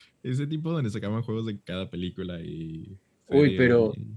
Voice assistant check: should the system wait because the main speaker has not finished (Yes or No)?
No